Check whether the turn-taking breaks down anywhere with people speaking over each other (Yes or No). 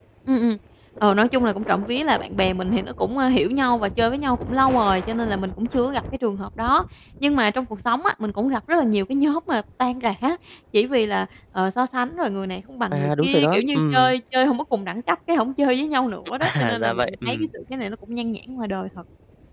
Yes